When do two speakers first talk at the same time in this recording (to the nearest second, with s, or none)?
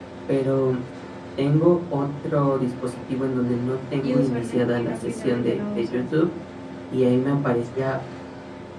4 s